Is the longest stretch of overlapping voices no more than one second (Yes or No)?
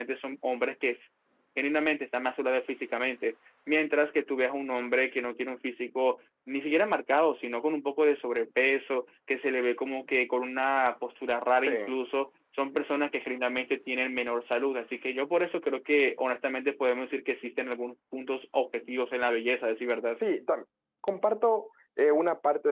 Yes